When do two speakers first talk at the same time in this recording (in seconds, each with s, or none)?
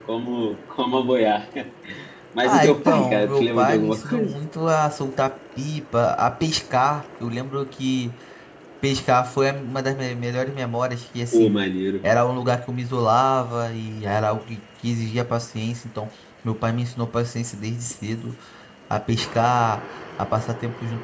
2.4 s